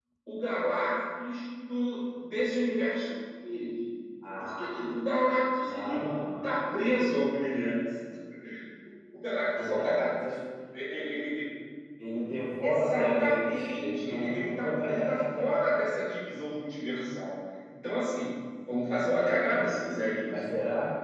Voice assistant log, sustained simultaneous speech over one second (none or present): present